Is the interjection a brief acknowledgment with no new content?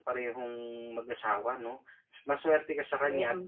Yes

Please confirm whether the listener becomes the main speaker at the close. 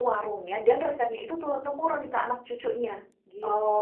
Yes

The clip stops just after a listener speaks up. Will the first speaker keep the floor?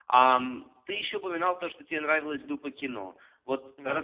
Yes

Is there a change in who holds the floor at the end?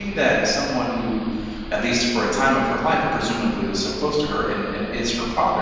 No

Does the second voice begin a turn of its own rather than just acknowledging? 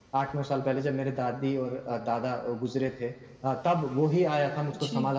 No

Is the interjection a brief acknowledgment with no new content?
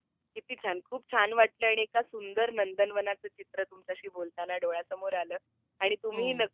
Yes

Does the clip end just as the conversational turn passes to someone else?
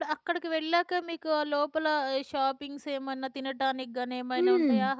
Yes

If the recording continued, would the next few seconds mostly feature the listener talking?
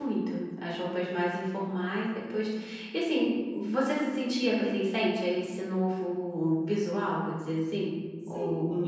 Yes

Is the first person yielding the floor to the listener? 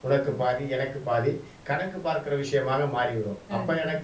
No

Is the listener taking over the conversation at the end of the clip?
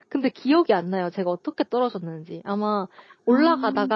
No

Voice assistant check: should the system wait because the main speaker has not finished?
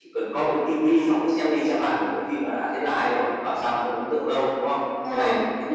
No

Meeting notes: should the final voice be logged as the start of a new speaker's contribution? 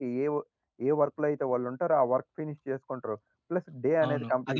Yes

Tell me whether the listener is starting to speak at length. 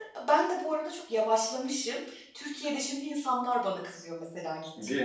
Yes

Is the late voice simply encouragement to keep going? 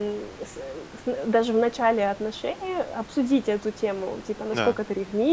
Yes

